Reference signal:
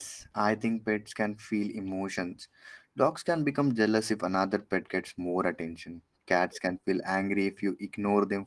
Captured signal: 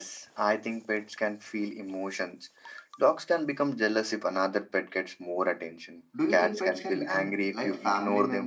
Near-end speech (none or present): present